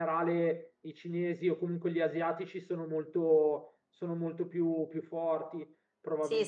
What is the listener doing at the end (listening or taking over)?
taking over